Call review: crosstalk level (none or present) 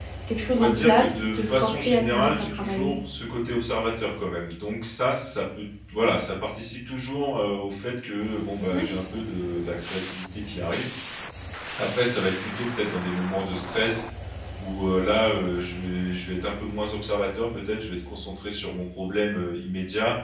present